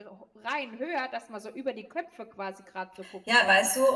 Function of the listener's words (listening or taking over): taking over